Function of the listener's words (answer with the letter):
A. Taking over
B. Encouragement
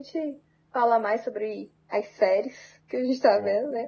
B